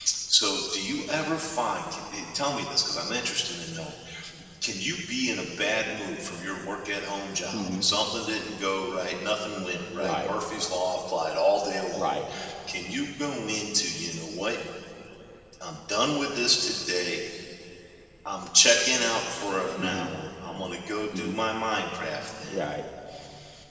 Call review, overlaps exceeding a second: none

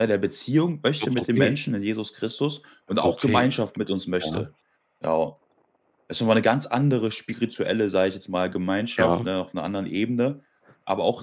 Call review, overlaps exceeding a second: none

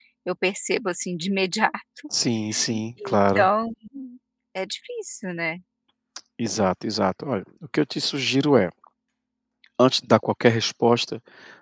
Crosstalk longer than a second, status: none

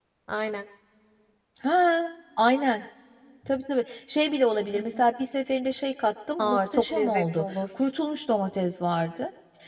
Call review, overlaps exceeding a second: present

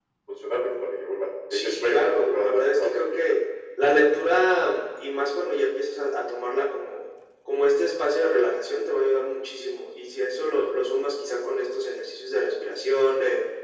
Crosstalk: present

